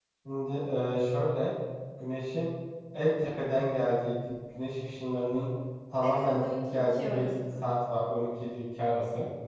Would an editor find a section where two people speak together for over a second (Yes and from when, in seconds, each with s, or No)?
Yes, from 6.0 s